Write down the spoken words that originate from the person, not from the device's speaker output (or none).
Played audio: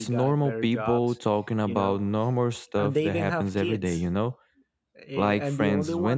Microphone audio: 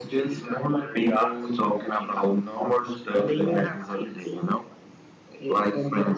none